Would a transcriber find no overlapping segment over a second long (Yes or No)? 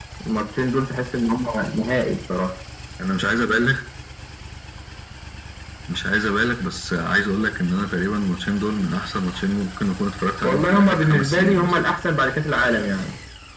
No